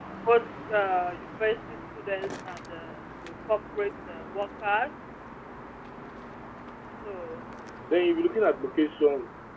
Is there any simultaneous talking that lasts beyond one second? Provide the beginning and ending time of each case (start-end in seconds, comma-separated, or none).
none